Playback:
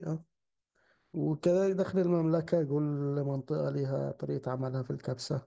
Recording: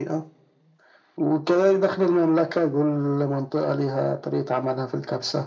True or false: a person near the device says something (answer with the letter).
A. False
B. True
A